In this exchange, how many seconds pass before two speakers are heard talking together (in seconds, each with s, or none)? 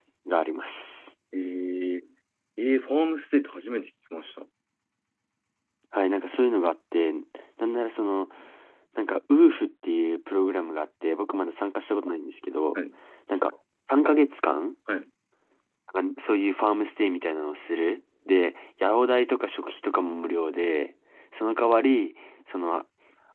none